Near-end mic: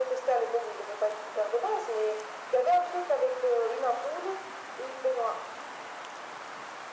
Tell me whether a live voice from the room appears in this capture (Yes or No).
No